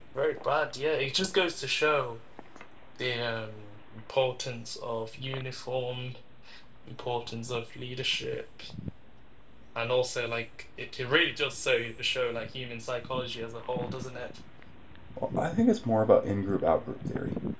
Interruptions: none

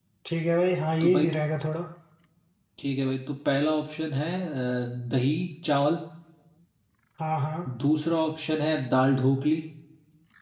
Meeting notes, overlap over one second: none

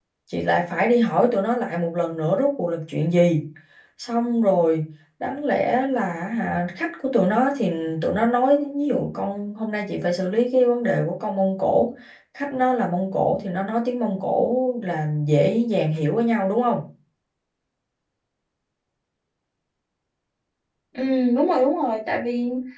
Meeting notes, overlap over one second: none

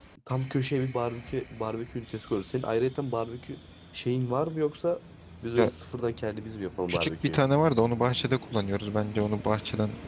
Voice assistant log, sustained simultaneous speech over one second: none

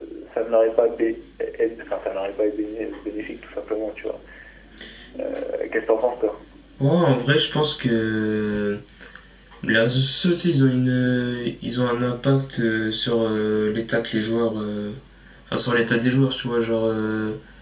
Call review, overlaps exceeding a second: none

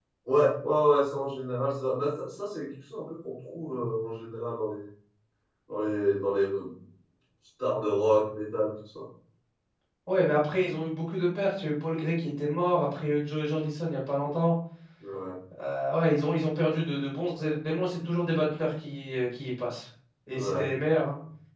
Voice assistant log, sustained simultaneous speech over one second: none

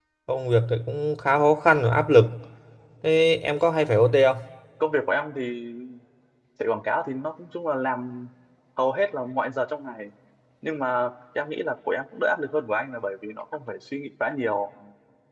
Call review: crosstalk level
none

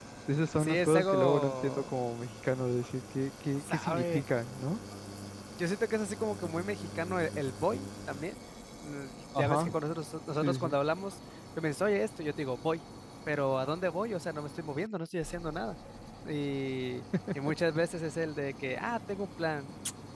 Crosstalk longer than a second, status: present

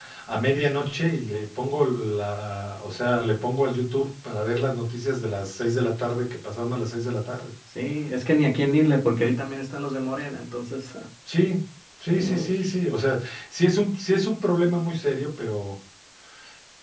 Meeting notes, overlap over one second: none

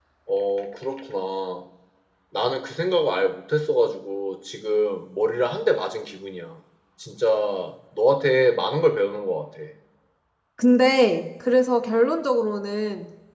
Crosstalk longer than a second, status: none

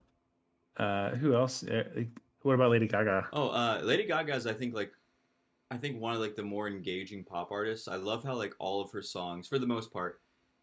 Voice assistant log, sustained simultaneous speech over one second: none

